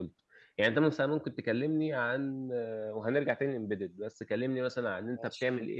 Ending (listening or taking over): listening